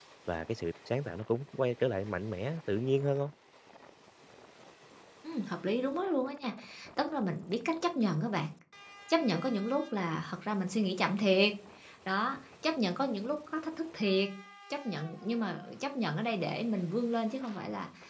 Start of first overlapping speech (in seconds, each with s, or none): none